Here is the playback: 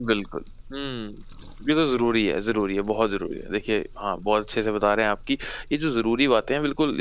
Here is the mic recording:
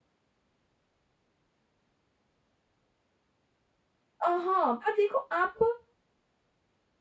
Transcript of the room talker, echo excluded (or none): अ, हाँ, पर देखो आप